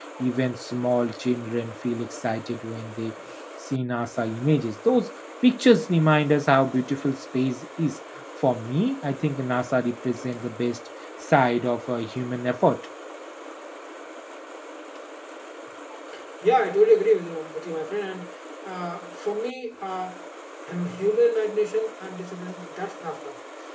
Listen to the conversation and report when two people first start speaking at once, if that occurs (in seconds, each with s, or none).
none